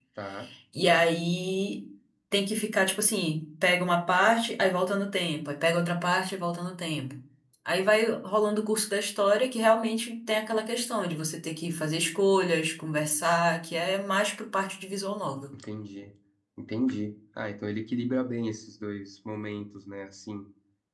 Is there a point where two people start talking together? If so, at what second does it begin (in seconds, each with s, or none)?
none